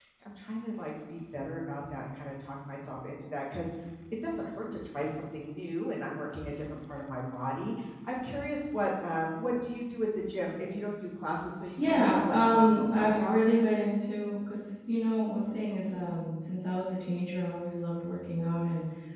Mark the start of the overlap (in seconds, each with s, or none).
11.8 s